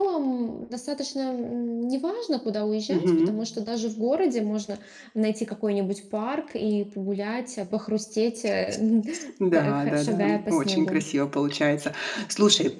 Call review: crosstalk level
present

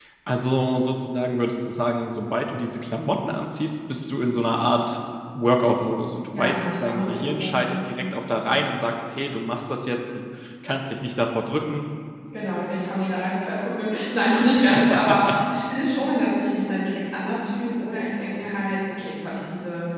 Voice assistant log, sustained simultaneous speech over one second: present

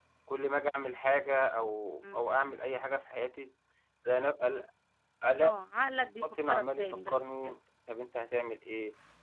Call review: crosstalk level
present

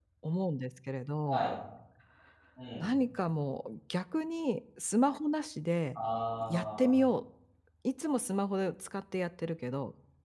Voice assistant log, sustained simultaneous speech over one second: none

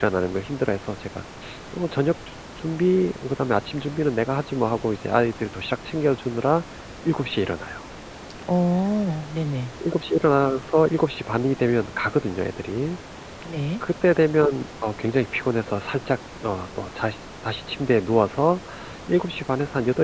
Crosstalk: none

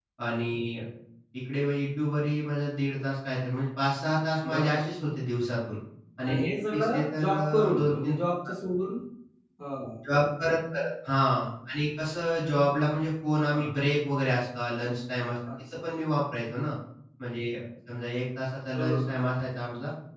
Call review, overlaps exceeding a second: present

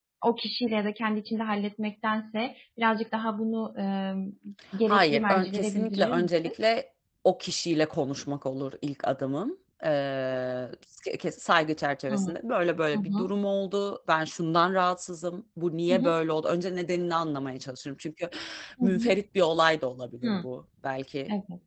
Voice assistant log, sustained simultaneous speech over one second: present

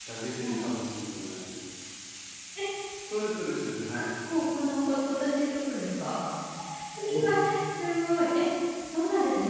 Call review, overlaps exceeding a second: none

